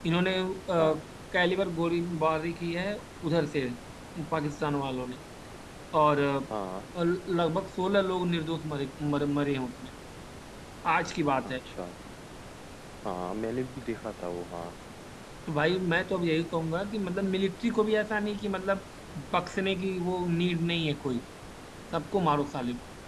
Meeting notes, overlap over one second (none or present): none